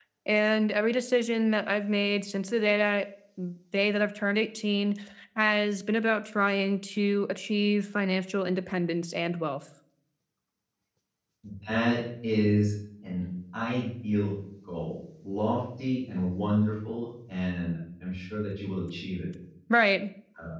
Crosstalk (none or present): none